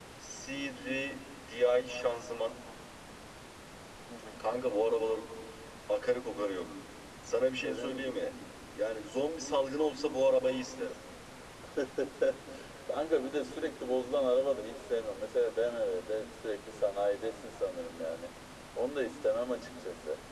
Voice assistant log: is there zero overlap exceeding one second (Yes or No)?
Yes